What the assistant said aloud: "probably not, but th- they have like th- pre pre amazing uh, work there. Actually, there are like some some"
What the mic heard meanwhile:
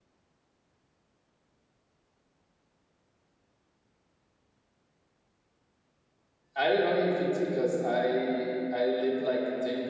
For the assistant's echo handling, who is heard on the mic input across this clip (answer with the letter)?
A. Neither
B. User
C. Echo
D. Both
B